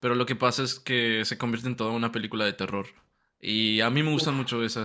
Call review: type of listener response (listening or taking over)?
listening